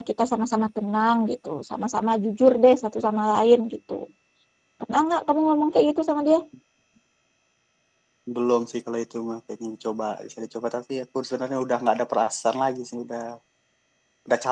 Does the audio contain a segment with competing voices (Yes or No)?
No